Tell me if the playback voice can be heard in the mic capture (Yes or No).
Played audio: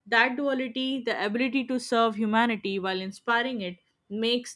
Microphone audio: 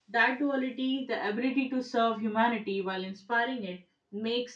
Yes